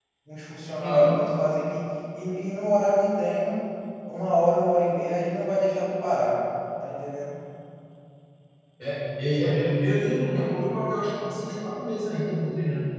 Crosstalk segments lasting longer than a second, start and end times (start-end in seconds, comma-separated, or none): none